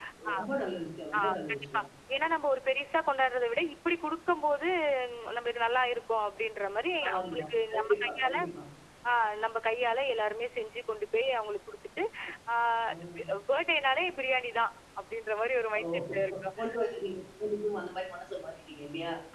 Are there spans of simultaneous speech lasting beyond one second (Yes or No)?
Yes